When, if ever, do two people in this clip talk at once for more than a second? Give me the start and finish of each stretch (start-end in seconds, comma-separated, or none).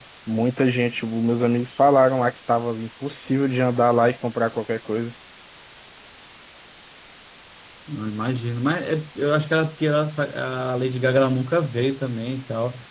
none